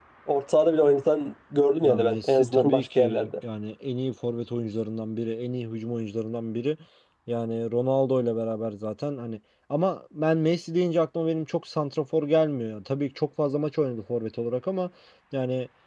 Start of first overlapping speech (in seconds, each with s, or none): 1.8 s